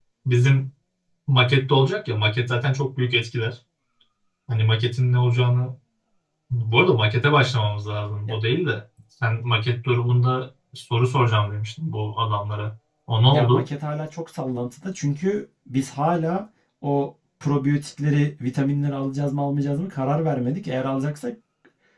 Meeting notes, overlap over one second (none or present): none